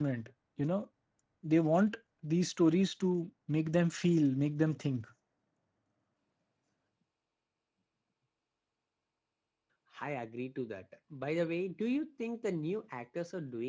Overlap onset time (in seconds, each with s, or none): none